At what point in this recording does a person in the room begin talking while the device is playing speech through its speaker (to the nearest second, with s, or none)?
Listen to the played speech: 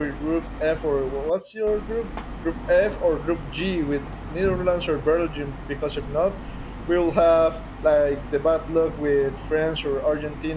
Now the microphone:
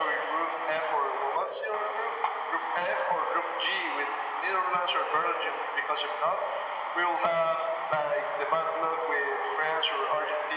none